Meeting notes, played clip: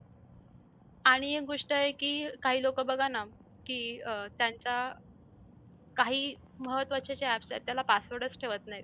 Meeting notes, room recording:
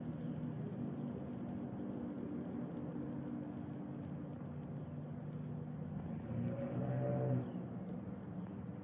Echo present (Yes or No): No